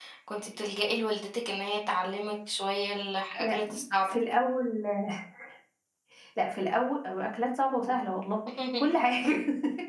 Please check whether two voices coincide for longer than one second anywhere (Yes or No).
No